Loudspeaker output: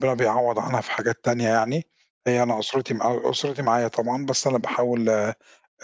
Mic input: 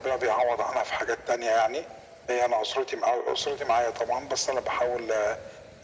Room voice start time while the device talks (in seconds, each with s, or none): none